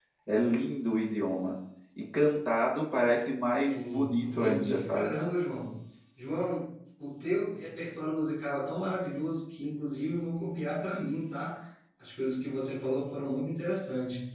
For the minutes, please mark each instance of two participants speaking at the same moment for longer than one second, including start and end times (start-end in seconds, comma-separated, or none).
3.6-5.1